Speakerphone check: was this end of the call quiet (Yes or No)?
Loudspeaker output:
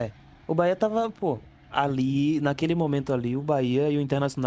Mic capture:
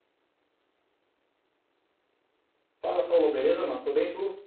No